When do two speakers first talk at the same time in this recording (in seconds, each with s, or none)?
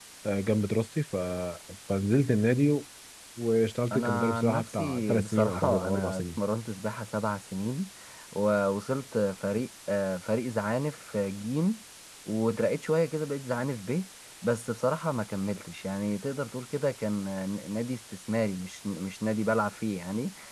3.9 s